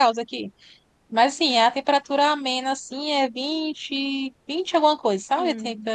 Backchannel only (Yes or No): Yes